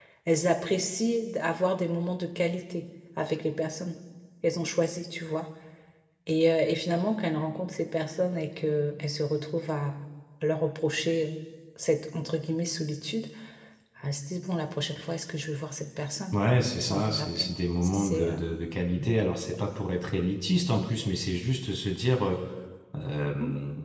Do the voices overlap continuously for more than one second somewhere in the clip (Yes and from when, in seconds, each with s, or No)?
Yes, from 16.3 s